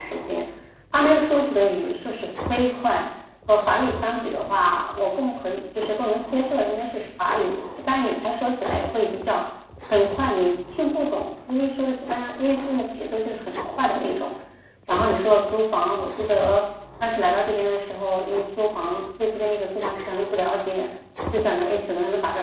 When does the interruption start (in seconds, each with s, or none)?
none